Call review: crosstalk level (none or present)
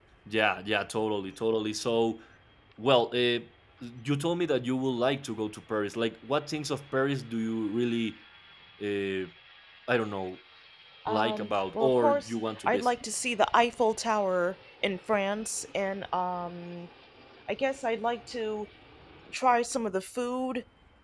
present